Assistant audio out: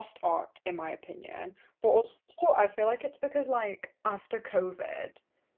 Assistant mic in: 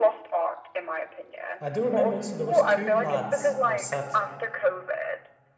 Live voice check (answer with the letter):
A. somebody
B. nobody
A